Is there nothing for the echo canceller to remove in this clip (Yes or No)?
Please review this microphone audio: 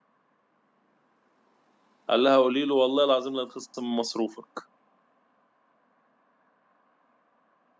Yes